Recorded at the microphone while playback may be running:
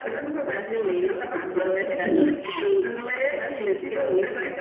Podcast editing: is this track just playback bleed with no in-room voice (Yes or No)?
No